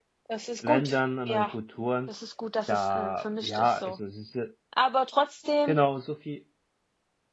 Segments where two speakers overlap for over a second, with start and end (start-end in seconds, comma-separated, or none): 2.7-4.0